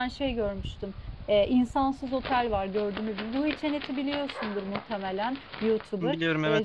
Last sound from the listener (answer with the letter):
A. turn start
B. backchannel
B